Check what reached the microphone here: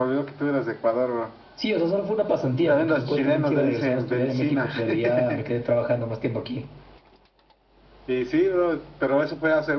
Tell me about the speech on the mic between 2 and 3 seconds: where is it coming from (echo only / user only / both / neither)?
echo only